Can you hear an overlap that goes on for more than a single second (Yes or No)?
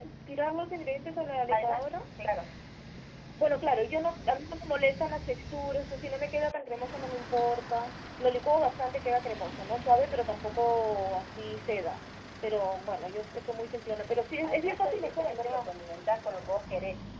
Yes